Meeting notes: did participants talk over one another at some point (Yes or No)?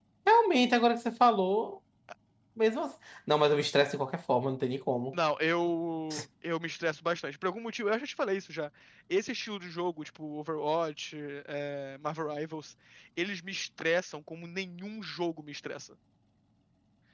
No